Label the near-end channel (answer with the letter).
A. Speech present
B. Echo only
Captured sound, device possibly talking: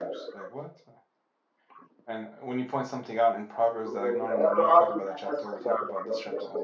A